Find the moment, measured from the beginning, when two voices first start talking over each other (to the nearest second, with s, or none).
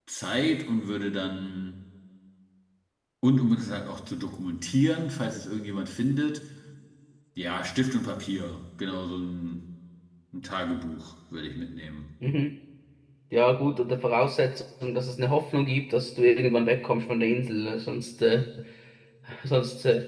none